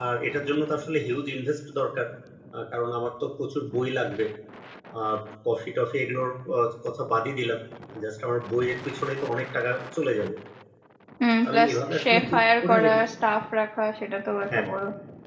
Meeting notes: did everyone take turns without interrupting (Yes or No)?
No